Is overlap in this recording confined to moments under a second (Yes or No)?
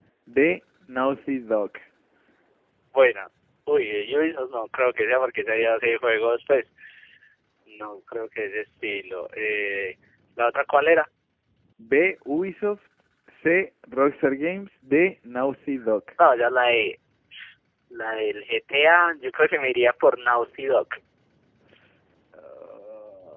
Yes